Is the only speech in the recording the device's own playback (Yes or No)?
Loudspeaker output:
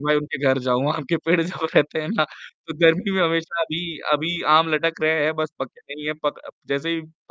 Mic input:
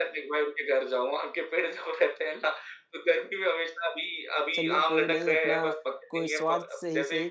No